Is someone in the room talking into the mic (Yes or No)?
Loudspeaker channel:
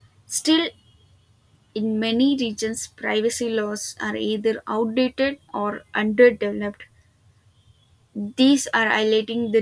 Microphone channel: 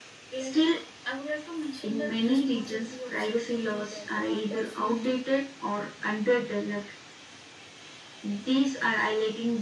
Yes